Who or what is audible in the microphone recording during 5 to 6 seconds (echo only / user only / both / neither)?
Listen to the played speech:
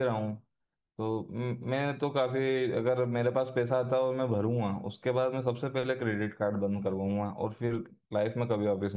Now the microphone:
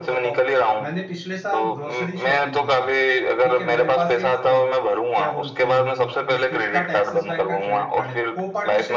both